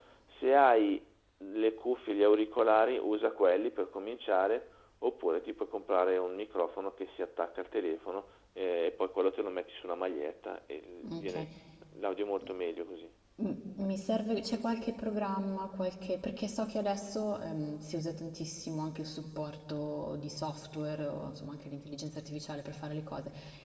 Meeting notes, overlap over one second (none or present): none